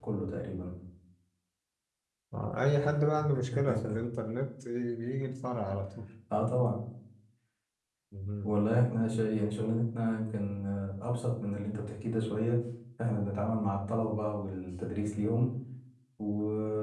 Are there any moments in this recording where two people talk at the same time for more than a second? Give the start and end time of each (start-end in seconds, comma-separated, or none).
none